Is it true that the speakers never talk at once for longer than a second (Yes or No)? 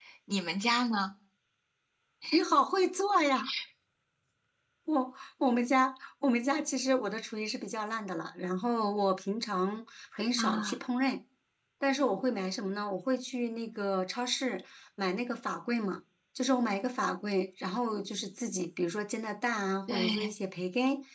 Yes